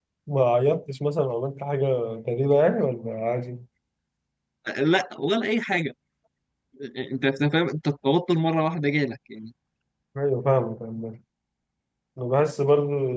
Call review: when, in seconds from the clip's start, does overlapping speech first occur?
none

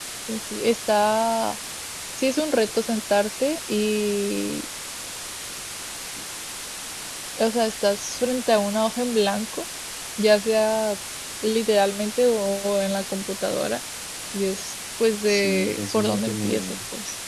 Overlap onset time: 15.3 s

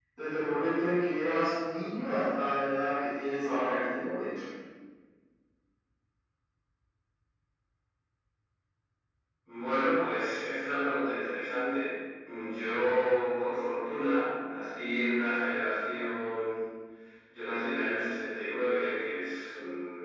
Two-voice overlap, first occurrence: none

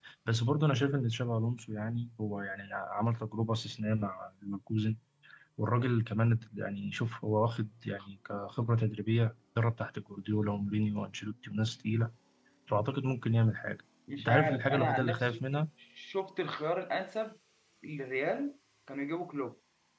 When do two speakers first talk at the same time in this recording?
14.1 s

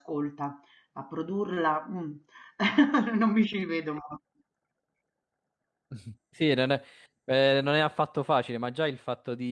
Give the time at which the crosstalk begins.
none

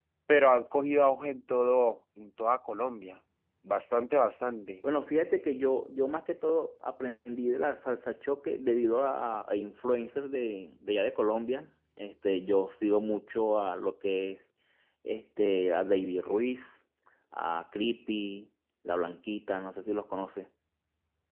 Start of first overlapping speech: none

